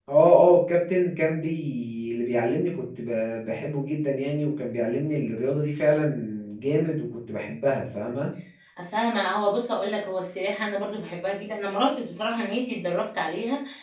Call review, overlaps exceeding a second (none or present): none